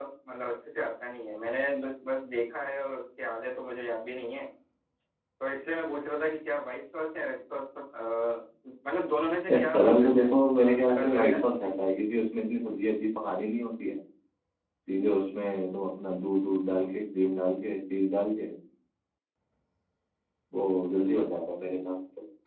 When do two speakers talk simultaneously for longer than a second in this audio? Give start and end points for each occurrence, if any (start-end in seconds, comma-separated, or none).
9.5-11.4